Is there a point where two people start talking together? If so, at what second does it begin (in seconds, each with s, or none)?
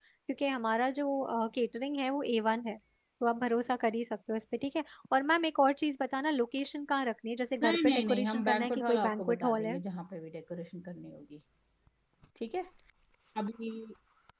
7.6 s